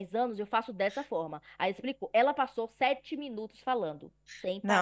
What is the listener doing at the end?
taking over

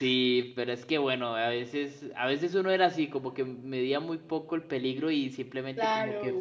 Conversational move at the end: listening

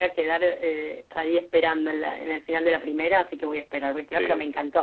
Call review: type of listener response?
listening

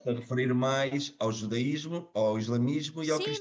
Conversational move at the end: taking over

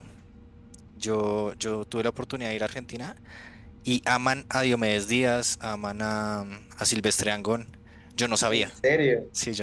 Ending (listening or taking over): taking over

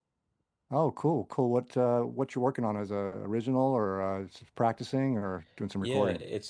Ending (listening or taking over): taking over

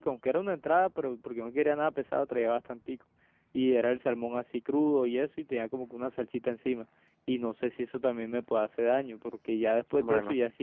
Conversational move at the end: listening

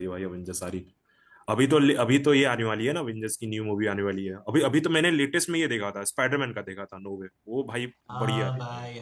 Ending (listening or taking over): taking over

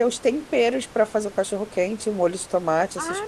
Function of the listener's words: taking over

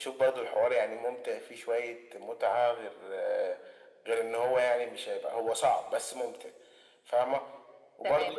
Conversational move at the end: taking over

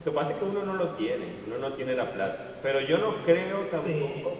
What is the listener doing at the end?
listening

